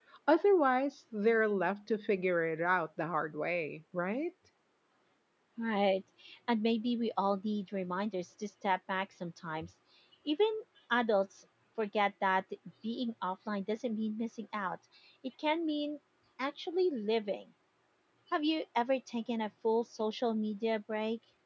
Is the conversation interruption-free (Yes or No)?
Yes